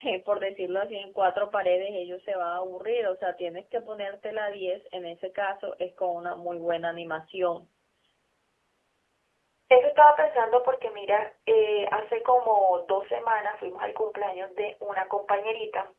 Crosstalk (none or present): none